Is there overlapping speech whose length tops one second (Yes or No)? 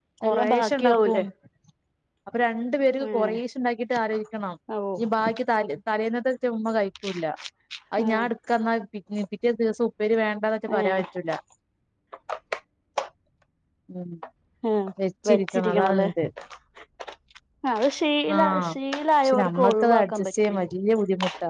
Yes